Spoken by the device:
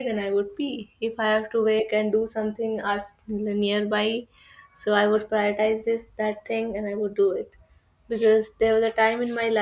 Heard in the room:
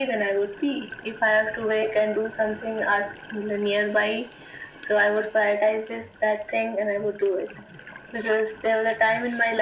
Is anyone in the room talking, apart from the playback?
No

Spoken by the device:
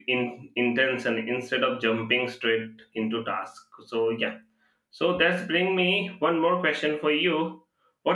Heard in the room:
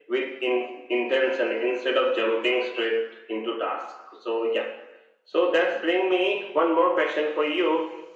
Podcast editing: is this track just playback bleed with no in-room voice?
Yes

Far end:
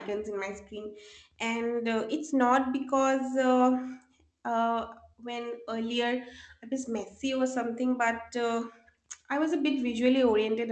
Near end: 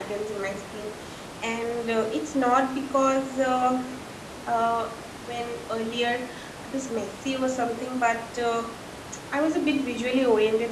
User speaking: No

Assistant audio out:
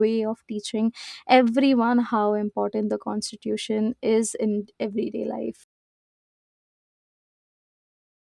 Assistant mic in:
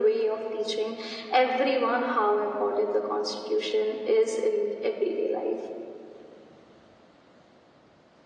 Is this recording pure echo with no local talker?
Yes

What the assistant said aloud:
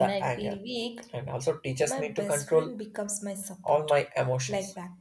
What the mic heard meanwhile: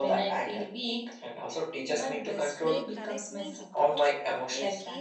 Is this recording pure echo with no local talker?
No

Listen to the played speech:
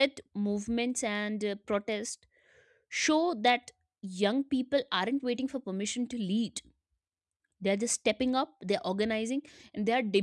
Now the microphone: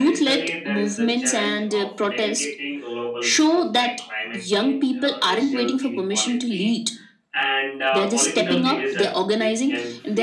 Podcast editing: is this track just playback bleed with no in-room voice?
No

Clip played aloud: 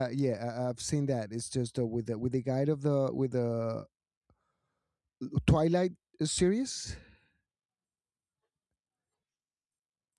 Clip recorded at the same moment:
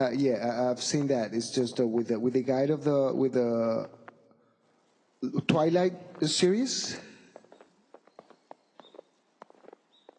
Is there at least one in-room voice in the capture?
No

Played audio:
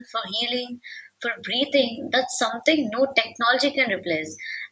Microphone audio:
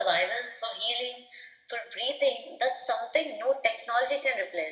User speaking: No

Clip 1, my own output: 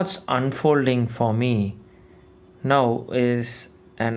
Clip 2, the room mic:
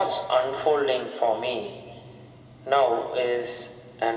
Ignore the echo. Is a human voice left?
No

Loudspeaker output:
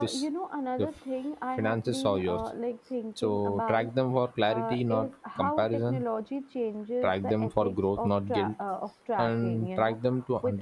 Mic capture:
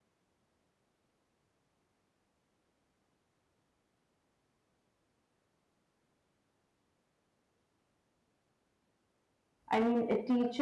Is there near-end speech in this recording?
Yes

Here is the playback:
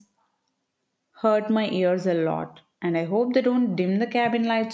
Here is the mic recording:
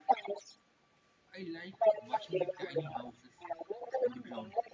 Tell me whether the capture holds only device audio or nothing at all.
No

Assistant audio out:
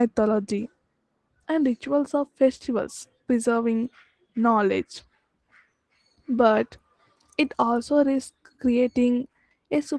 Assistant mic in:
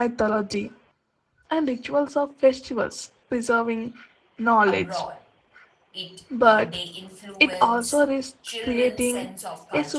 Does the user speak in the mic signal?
Yes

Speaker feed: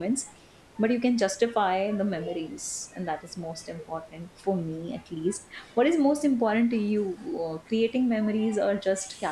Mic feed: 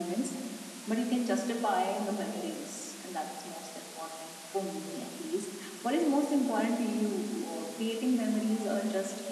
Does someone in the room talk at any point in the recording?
No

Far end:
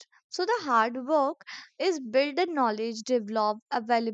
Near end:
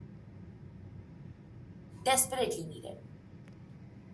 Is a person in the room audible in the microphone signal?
Yes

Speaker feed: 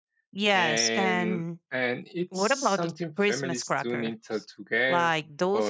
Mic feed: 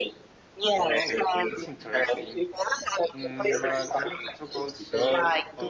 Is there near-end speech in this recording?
Yes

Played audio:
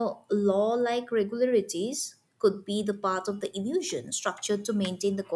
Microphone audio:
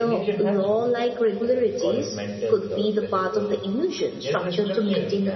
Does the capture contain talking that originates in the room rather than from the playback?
Yes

